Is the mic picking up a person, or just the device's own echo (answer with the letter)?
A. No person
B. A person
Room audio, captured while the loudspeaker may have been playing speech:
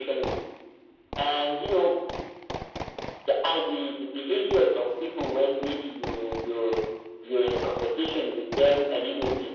A